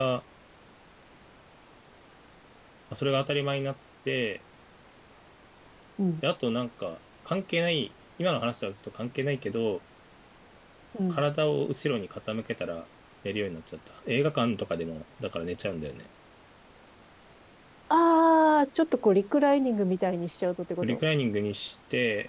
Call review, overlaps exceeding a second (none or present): none